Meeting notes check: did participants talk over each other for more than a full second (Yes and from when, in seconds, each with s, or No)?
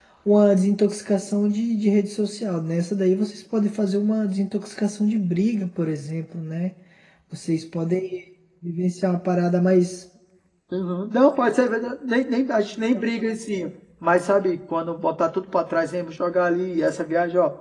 No